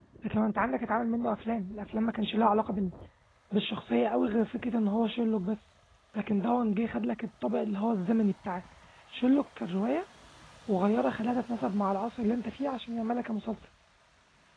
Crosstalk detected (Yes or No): No